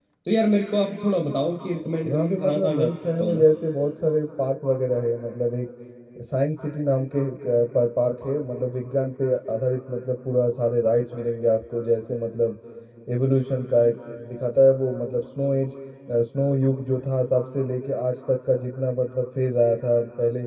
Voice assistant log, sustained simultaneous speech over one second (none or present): present